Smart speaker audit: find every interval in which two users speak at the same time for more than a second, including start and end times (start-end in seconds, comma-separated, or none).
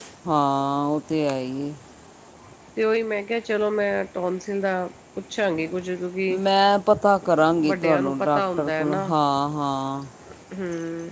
7.7-9.1